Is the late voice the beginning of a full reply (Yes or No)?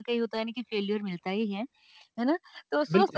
No